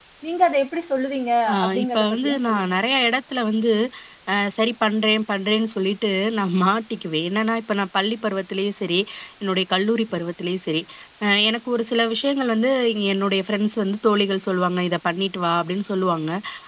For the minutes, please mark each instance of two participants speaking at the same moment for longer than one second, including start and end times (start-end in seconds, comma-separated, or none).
1.5-2.7